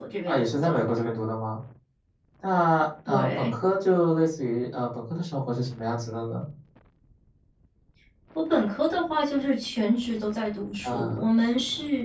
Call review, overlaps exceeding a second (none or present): none